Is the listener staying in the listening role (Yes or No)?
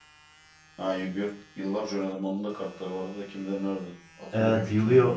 No